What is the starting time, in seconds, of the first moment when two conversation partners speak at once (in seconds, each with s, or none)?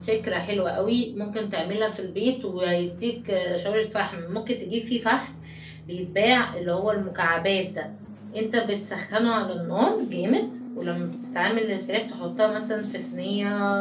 none